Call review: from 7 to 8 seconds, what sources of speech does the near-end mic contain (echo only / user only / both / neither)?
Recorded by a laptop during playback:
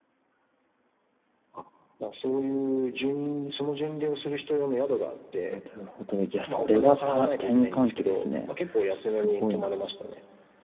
both